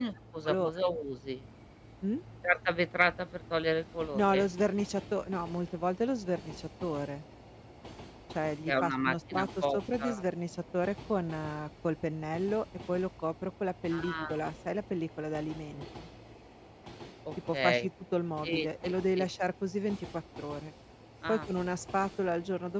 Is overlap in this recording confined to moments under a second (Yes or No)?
No